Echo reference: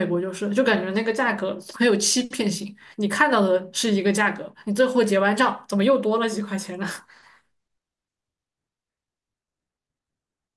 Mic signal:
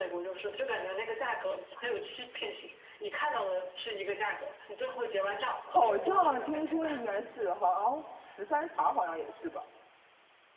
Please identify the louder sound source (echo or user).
user